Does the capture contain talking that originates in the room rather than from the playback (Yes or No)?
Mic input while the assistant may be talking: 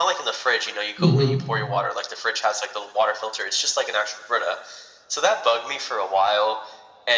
Yes